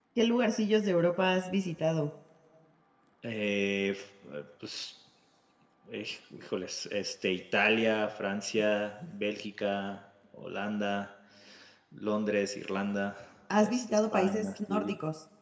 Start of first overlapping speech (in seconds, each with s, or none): 13.6 s